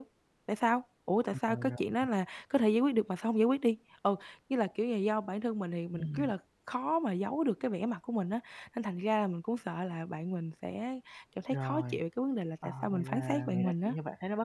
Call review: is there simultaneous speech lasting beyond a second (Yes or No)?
Yes